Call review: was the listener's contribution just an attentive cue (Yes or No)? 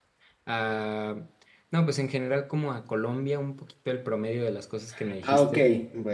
No